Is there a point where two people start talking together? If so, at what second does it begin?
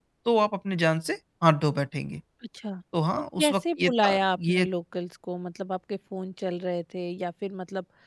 3.4 s

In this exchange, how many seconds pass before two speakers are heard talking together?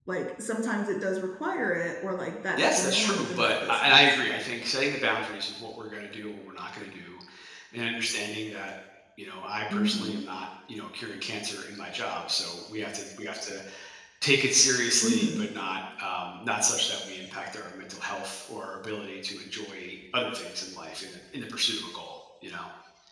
2.6 s

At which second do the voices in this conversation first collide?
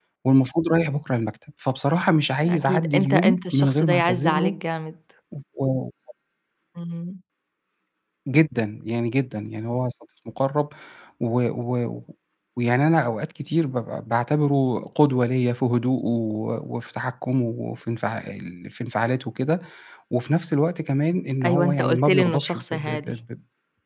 2.4 s

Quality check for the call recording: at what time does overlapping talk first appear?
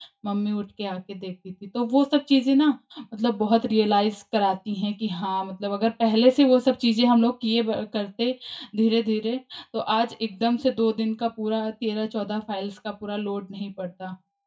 none

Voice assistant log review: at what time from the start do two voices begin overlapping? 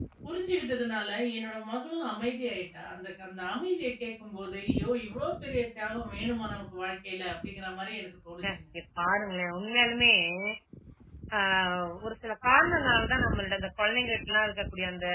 none

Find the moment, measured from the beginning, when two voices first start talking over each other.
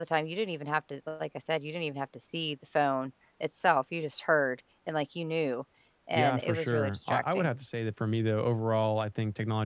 6.1 s

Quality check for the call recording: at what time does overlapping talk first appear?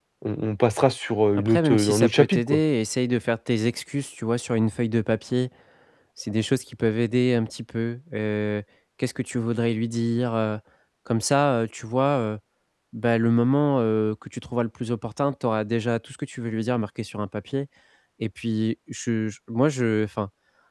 1.4 s

